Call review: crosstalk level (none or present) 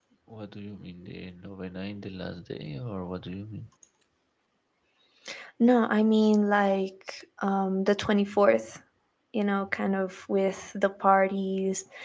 none